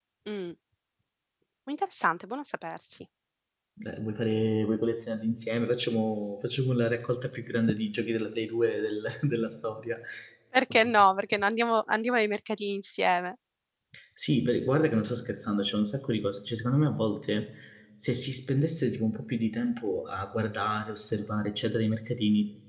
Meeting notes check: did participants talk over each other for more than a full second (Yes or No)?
No